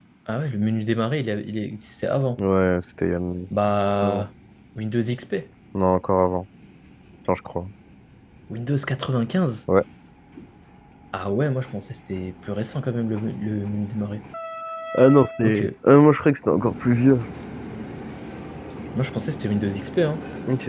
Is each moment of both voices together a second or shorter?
Yes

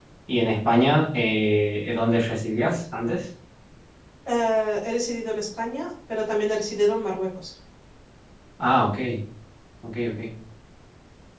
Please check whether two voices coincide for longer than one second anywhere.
No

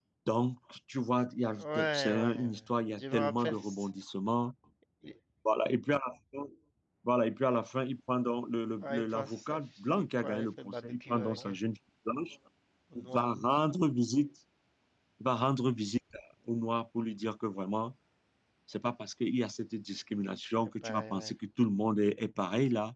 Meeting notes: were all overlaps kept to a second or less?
No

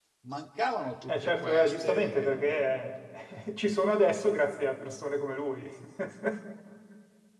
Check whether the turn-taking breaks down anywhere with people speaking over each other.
Yes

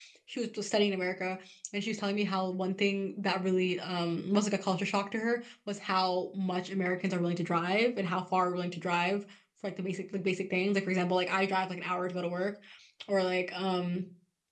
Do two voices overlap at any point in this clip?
No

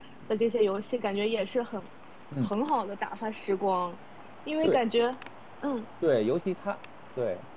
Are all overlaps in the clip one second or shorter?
Yes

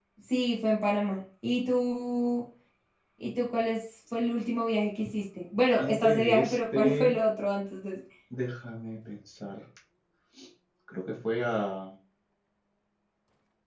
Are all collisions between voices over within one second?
No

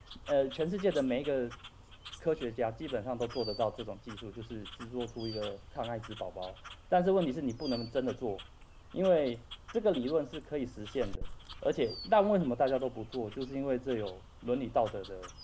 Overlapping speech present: No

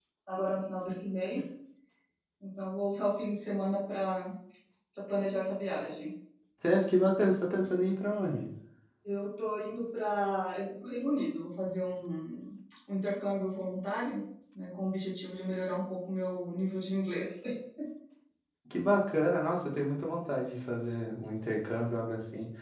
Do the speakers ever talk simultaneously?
No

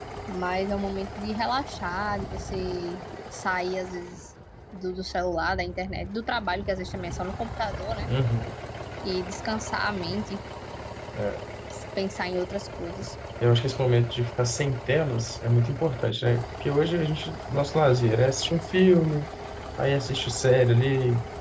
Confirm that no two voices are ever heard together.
Yes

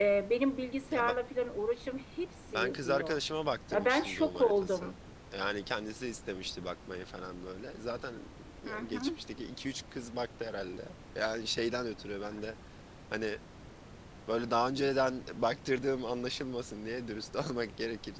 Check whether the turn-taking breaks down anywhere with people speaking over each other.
Yes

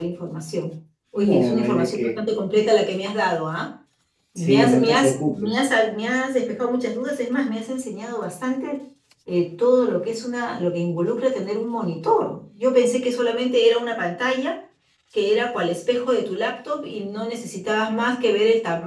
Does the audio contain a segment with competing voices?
Yes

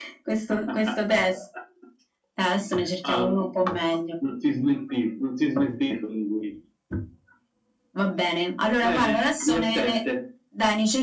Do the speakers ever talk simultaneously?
Yes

